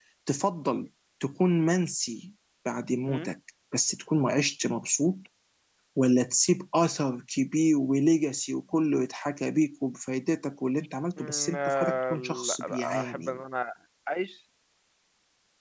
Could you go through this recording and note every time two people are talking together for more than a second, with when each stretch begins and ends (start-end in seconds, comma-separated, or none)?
11.2-13.4